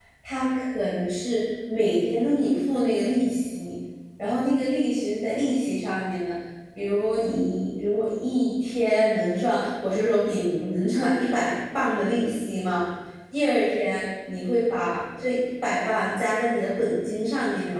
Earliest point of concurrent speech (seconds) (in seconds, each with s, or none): none